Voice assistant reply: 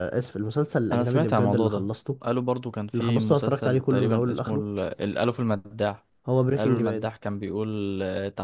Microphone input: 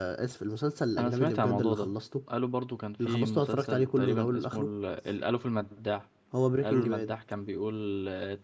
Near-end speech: none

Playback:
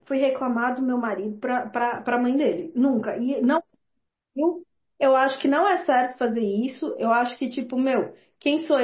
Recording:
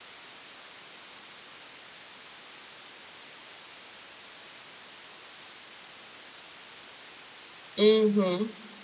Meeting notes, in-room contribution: present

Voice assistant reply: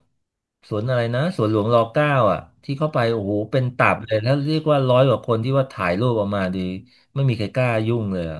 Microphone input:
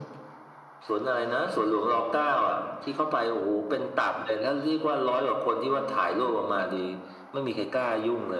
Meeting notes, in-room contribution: none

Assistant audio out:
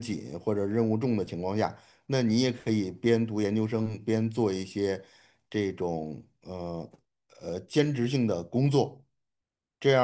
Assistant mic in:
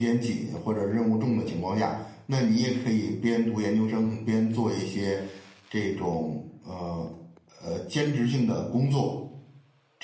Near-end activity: none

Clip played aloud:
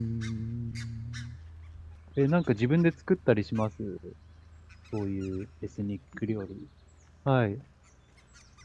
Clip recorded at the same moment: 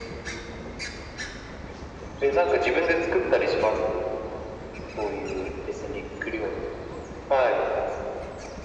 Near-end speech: none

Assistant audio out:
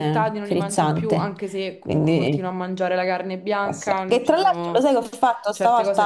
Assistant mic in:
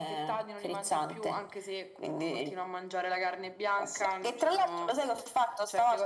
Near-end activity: none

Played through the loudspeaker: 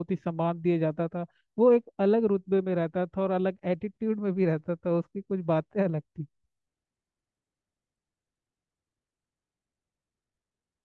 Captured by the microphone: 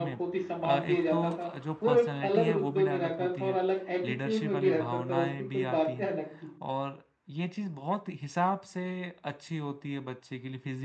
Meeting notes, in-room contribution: present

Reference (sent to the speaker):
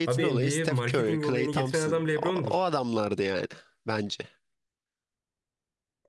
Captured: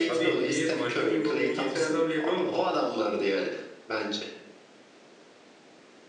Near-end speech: none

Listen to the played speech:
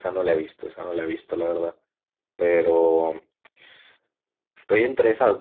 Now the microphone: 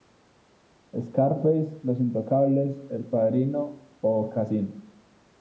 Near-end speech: present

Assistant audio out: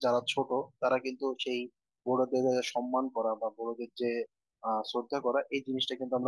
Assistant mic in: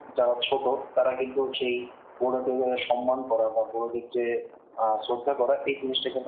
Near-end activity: none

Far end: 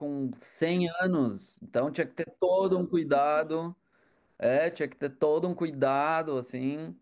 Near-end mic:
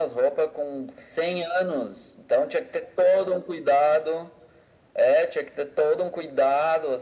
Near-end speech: none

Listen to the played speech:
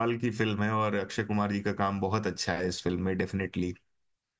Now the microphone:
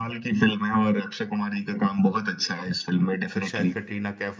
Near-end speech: present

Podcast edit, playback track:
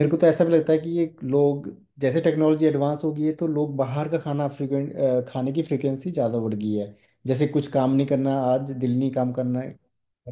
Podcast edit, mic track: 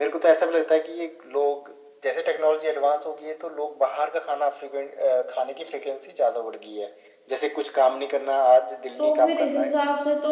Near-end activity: present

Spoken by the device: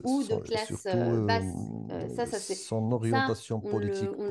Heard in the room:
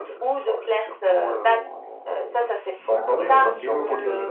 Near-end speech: present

